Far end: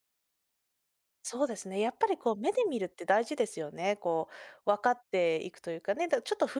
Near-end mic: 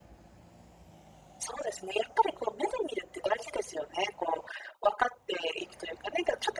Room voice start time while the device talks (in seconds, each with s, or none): none